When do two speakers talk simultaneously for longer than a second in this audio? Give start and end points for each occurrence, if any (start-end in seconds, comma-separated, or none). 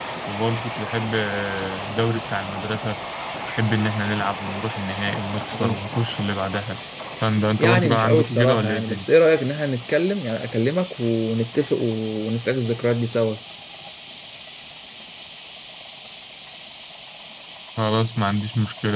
7.6-9.1